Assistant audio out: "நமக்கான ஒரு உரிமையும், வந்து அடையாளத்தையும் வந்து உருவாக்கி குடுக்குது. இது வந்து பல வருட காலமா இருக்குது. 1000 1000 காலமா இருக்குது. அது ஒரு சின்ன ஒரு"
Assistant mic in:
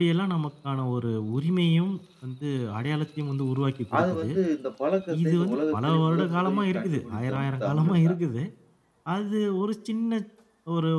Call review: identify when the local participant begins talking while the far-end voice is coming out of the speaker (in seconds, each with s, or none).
4.0 s